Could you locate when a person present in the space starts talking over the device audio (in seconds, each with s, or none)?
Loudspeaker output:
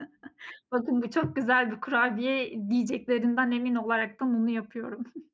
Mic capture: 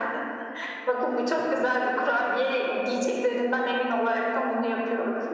none